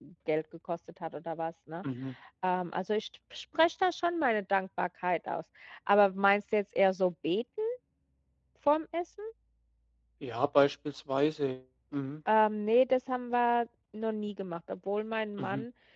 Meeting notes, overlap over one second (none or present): none